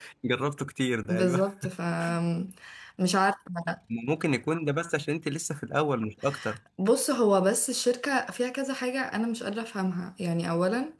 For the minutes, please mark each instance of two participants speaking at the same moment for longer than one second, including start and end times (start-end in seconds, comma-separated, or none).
none